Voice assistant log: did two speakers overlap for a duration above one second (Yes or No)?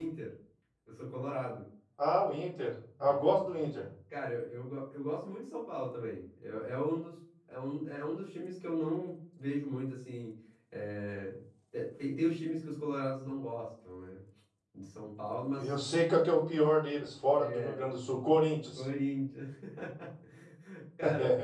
No